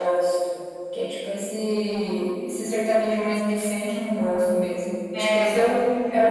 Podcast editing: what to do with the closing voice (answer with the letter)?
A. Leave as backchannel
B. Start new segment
A